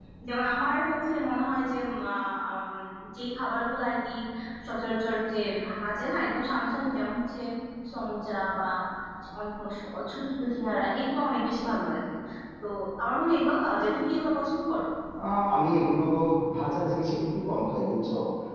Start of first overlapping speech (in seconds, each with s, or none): none